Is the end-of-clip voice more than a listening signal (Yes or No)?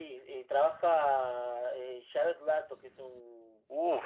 Yes